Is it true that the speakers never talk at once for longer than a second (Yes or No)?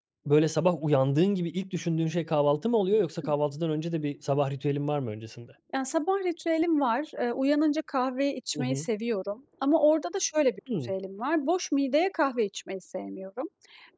Yes